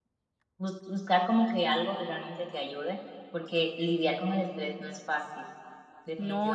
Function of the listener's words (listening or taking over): taking over